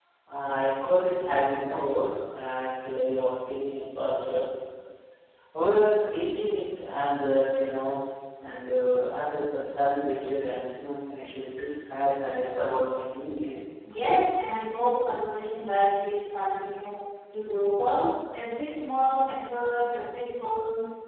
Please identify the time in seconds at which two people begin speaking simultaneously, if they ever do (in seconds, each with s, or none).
none